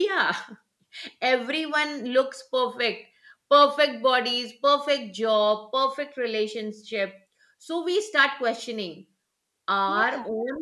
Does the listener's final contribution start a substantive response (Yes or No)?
No